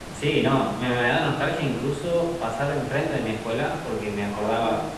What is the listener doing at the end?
listening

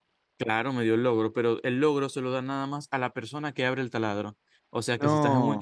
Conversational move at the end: listening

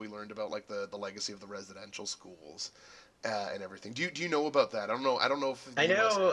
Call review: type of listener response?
taking over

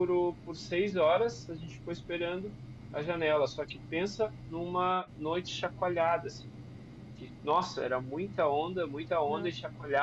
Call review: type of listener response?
listening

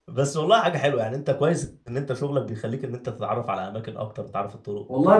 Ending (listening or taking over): taking over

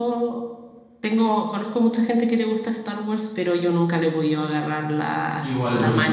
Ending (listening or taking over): taking over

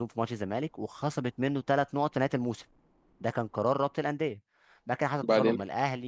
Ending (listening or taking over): listening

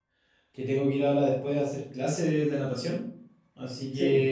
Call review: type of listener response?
listening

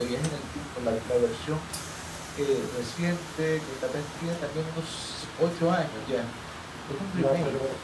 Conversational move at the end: taking over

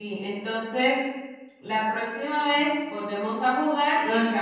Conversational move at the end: listening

